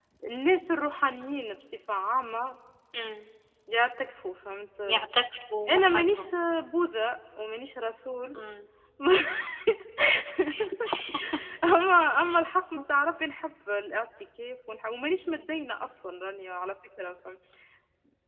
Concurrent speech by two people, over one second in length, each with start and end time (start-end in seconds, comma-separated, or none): none